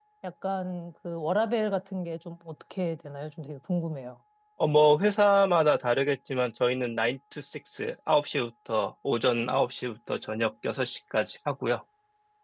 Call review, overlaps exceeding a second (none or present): none